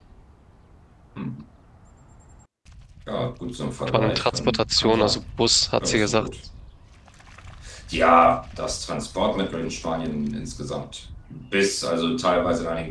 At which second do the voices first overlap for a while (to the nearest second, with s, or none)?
4 s